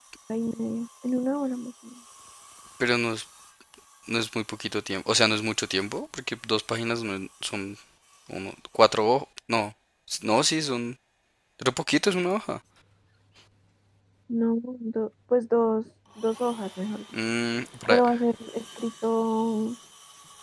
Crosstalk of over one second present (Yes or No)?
No